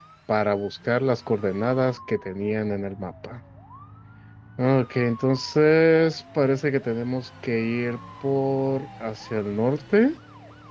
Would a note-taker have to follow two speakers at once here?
No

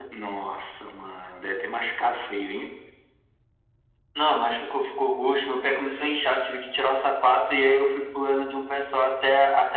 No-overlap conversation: Yes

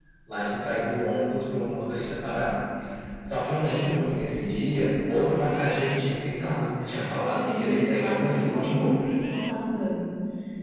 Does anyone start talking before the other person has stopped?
Yes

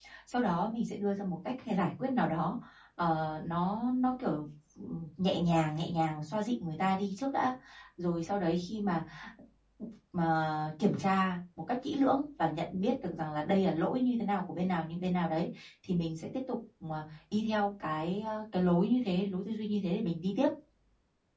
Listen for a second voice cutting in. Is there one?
No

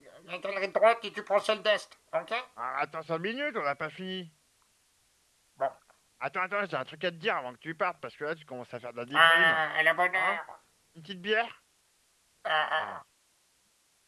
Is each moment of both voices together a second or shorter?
Yes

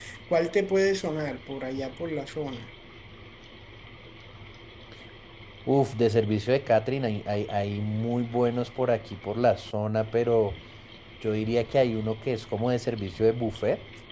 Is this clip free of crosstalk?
Yes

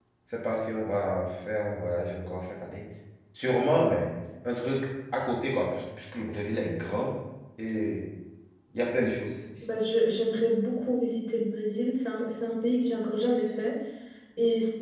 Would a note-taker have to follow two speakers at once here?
No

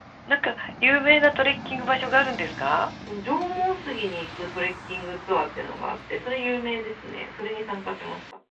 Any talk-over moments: No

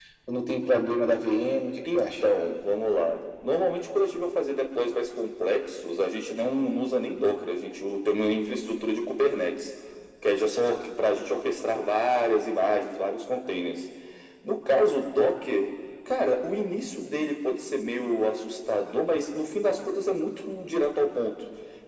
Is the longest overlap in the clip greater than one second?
No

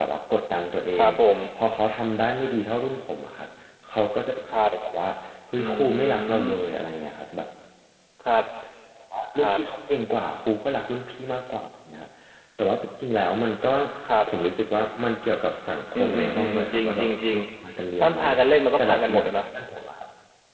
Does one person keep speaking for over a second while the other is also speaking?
Yes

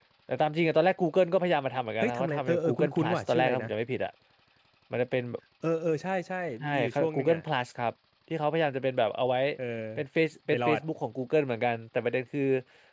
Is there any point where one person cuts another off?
Yes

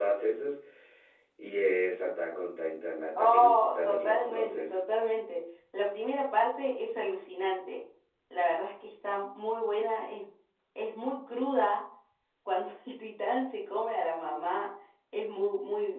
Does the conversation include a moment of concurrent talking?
Yes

